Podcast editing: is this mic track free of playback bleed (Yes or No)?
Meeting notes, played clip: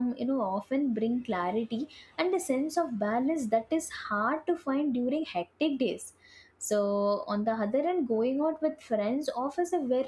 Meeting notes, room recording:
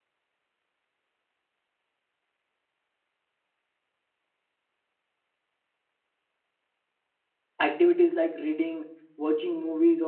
Yes